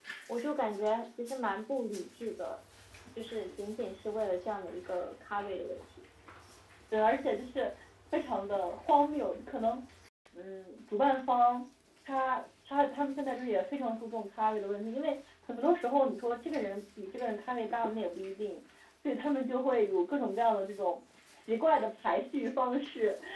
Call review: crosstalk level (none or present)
none